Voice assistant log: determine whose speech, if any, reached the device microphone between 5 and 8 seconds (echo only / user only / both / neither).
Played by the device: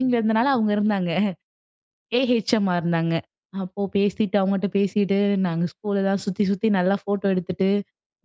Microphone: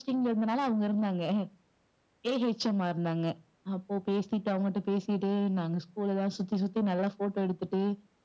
echo only